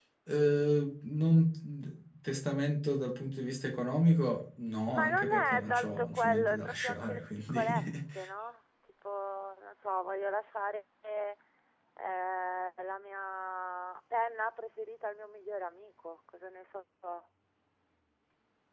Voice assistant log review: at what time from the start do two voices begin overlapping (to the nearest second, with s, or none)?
5 s